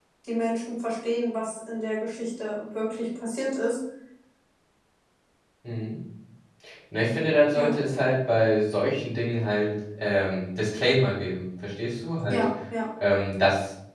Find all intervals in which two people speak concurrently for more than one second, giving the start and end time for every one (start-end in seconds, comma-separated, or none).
none